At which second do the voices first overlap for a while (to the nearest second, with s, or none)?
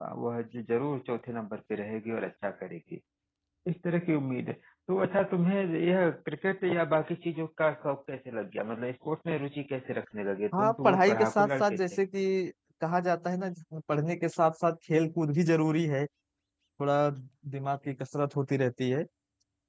11 s